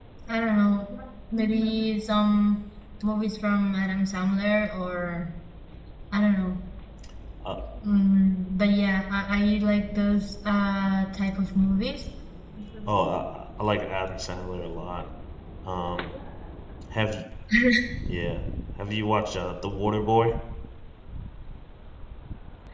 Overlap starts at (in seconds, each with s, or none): none